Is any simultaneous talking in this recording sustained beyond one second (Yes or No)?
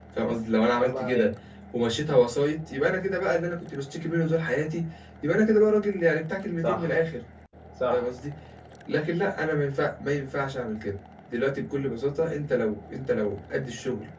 No